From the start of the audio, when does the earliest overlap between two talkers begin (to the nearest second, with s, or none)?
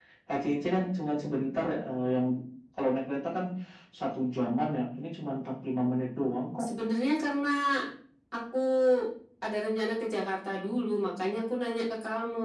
none